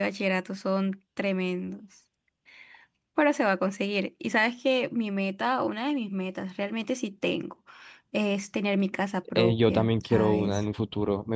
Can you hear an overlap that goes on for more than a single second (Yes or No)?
Yes